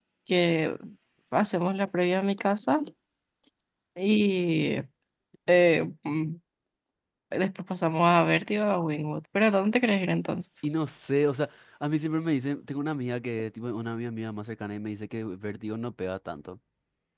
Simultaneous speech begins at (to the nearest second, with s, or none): none